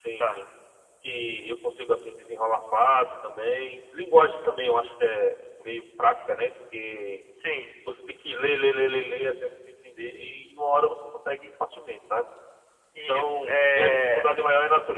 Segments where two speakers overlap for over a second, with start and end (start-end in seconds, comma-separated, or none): 13.0-14.2